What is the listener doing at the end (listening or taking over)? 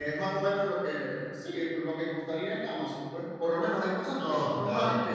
listening